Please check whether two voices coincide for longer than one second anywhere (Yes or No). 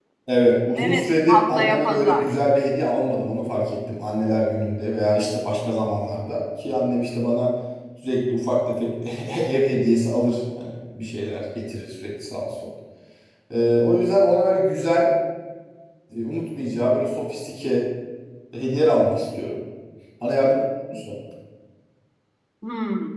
Yes